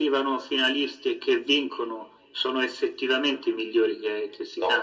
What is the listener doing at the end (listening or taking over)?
taking over